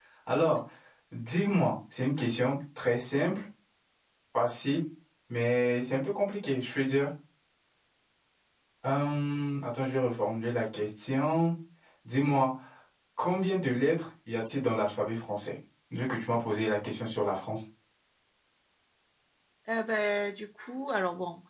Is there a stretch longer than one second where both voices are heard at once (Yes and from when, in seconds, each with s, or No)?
No